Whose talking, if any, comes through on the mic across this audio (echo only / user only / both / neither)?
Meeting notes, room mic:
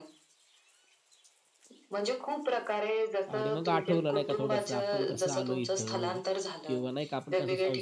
both